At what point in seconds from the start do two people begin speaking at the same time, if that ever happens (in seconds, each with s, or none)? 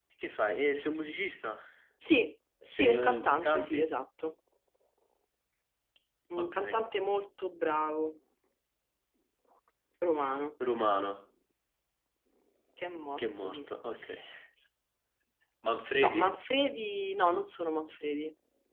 2.7 s